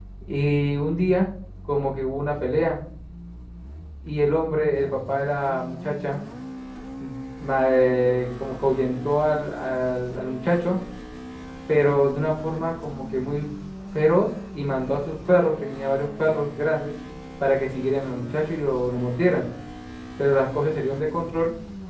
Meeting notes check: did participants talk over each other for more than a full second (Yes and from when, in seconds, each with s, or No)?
No